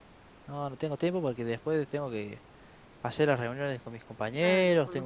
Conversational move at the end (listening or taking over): taking over